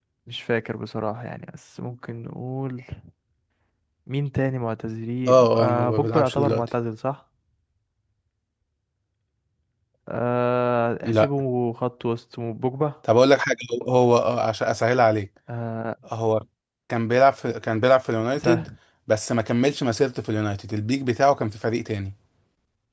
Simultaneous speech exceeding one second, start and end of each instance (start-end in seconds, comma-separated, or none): 5.3-6.7